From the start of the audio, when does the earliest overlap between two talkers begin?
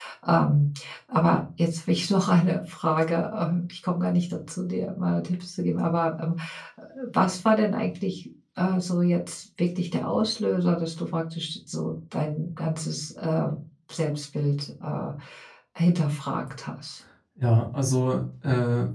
none

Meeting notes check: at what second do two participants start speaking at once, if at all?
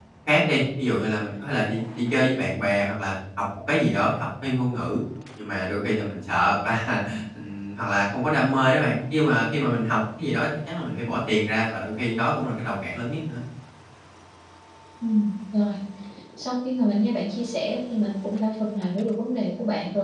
none

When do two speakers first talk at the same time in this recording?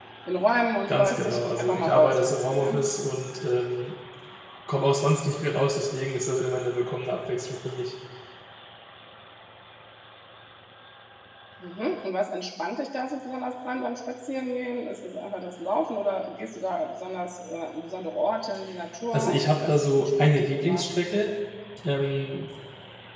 0.9 s

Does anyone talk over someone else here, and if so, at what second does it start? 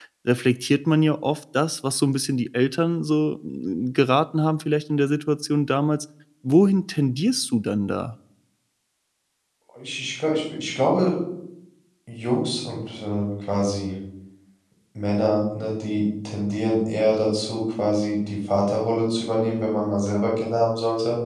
none

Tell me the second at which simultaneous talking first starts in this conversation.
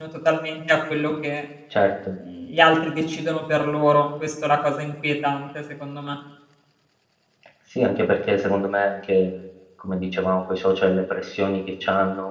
none

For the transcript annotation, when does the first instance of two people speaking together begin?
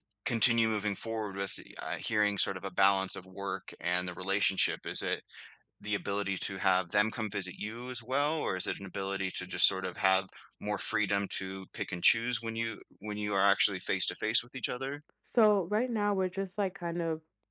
none

